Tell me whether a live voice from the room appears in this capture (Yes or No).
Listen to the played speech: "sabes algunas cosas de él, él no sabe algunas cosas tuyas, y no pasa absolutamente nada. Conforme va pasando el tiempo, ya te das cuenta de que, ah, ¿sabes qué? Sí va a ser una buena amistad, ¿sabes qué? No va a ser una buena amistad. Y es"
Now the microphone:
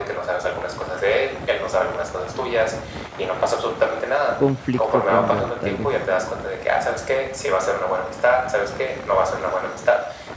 Yes